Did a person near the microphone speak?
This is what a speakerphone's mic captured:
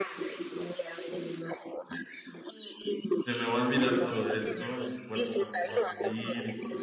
Yes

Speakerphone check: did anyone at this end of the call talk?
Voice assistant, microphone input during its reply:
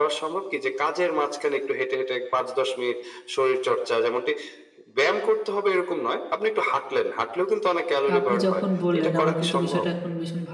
Yes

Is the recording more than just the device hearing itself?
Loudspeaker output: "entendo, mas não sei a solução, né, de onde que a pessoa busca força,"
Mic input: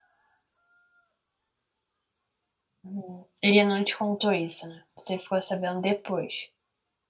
Yes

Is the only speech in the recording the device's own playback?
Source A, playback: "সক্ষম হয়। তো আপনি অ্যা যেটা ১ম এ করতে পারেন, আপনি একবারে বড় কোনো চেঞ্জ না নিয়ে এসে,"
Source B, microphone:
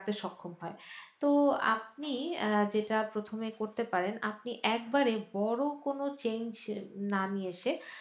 Yes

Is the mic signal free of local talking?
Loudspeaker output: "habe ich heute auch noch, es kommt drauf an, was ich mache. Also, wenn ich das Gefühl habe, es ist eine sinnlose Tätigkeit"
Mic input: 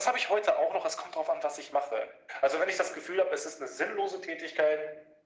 Yes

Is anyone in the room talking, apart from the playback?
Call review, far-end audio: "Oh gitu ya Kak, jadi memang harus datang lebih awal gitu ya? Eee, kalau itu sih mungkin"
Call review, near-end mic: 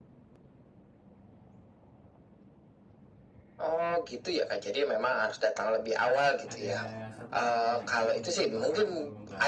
Yes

